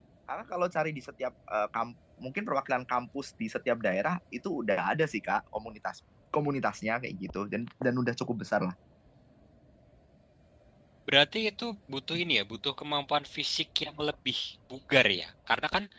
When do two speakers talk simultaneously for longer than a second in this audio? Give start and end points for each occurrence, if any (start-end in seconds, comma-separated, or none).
none